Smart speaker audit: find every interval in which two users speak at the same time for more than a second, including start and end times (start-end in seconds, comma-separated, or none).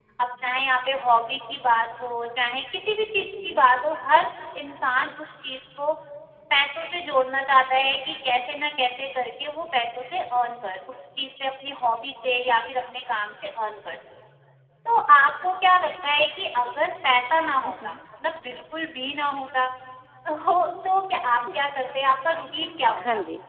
none